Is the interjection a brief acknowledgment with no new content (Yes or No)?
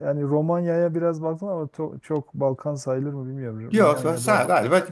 No